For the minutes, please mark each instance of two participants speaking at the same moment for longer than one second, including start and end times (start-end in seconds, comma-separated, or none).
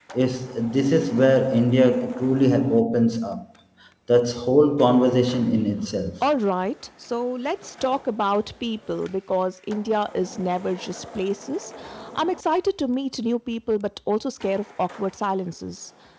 none